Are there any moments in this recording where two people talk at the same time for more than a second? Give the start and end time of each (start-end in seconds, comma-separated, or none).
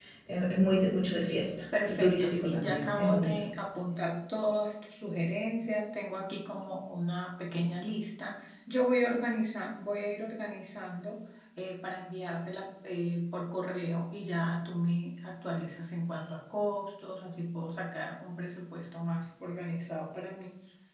1.9-3.4